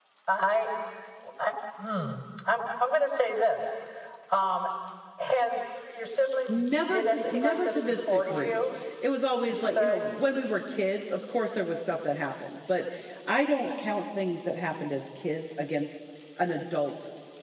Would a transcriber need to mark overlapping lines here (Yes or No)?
Yes